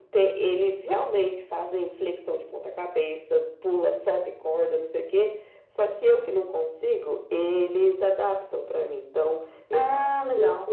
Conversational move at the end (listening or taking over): listening